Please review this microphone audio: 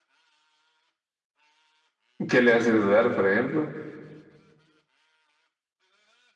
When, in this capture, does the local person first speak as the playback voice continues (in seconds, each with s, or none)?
2.3 s